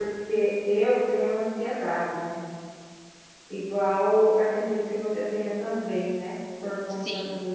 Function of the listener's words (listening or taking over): listening